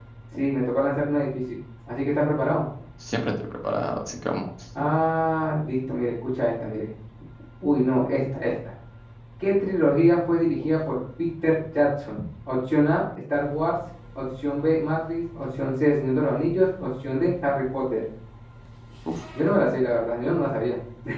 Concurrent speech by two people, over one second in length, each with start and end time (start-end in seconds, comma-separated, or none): none